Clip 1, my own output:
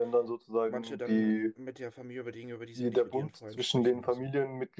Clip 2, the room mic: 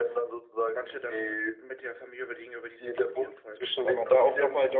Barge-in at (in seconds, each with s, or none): 3.8 s